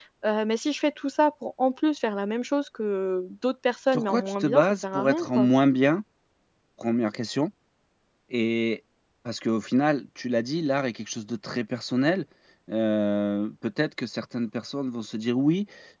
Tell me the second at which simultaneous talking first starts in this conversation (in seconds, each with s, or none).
3.9 s